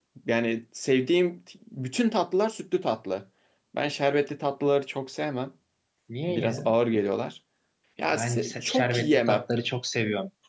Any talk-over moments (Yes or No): Yes